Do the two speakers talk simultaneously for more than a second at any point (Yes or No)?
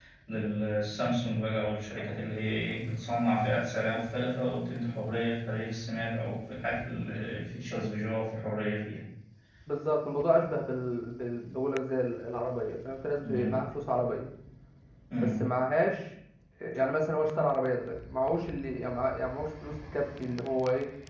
No